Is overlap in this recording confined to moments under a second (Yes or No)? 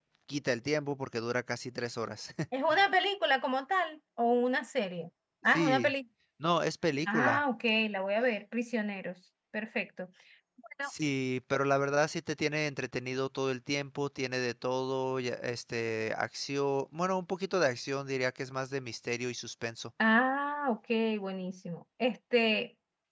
Yes